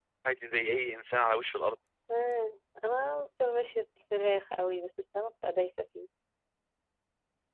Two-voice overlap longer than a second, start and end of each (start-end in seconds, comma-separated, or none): none